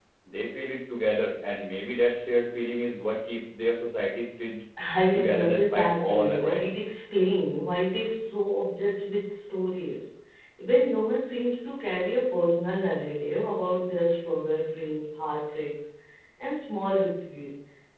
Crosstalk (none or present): present